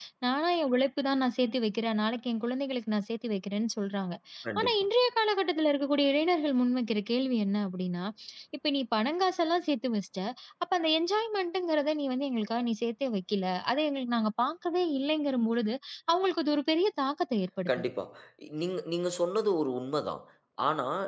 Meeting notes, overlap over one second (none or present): none